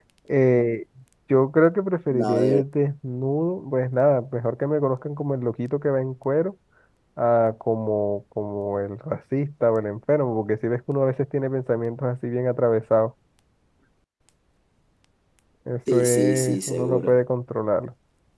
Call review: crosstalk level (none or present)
present